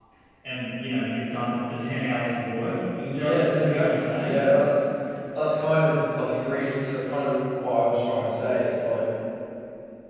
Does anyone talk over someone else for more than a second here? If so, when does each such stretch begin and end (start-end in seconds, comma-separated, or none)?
3.2-4.5